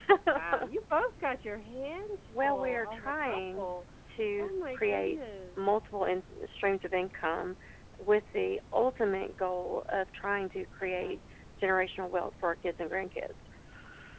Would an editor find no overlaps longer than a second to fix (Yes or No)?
No